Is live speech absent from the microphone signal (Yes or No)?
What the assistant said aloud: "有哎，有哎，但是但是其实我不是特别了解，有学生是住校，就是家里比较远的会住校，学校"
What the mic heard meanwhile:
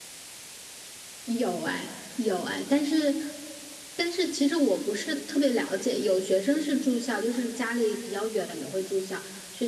Yes